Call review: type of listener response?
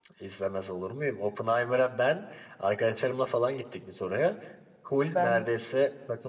listening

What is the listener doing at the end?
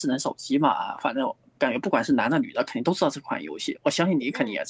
taking over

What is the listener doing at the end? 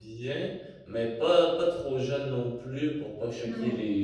listening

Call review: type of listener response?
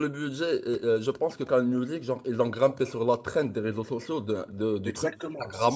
taking over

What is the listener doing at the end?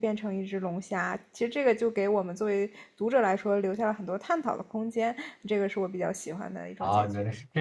taking over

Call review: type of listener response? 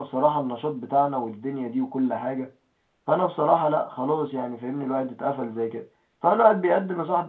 listening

